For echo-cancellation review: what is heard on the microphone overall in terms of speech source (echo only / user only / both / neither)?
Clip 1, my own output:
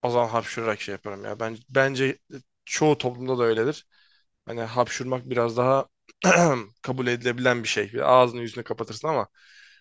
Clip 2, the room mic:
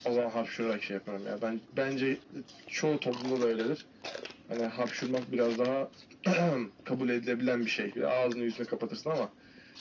echo only